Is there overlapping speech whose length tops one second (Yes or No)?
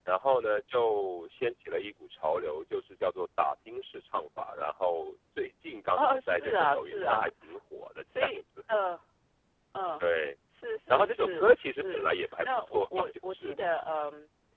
Yes